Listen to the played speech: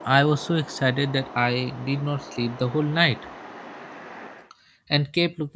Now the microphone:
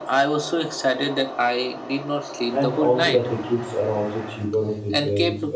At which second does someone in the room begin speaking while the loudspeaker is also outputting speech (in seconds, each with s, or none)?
2.5 s